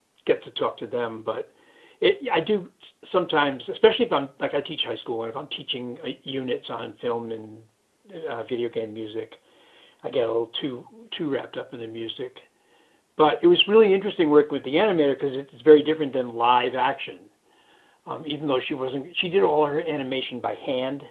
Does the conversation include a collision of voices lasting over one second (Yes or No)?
No